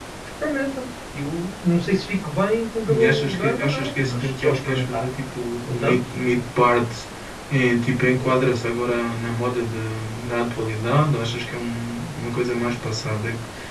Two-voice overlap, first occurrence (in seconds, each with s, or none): 2.9 s